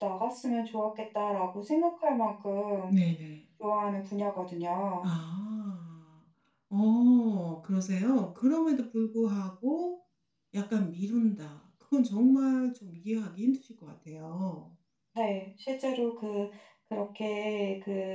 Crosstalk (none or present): none